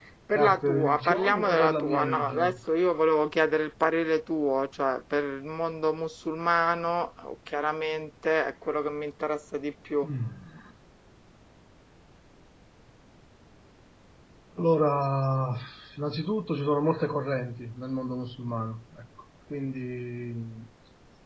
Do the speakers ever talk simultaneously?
Yes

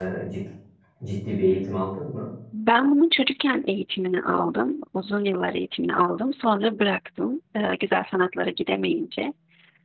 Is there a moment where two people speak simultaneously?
No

